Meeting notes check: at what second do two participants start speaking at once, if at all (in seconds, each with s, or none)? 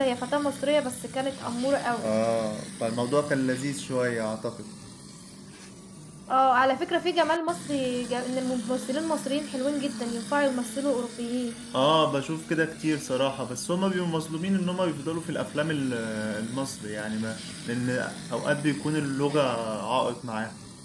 none